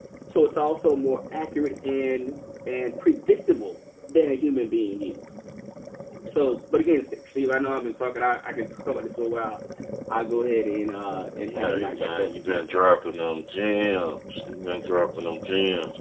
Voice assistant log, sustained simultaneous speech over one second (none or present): present